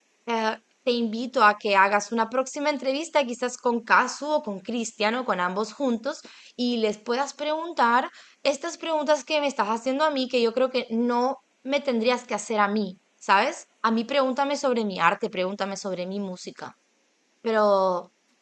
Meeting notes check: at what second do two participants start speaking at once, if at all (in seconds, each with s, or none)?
none